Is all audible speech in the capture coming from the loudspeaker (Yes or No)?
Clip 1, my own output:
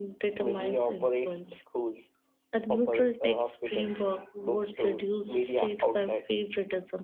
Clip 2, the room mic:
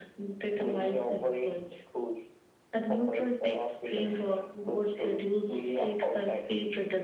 Yes